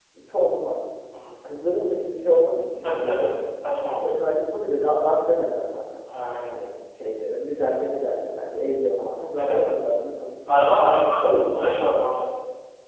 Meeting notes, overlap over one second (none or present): none